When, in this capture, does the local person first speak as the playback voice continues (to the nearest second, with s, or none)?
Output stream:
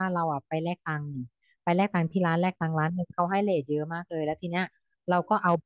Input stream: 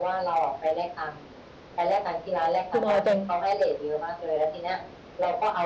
3 s